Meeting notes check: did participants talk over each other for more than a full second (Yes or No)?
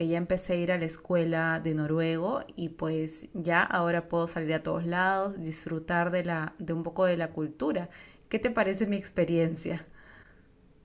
No